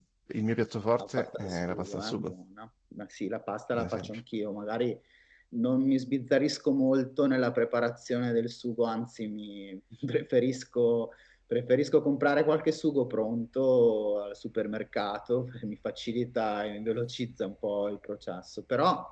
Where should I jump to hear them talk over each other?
1.0 s

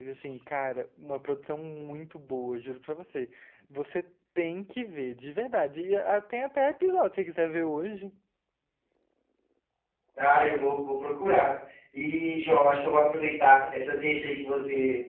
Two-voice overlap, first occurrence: none

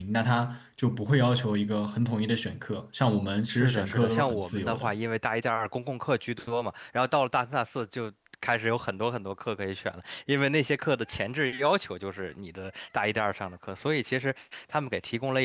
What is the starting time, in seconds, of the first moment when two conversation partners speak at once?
3.5 s

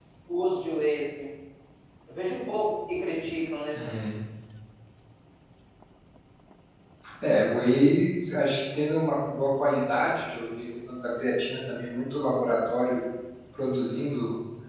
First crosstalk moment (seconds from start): none

